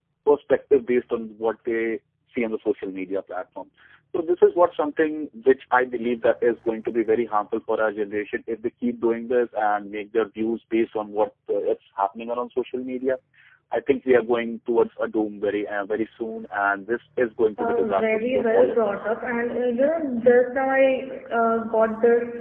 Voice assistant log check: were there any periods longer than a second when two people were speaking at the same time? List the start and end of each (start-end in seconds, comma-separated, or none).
17.6-19.1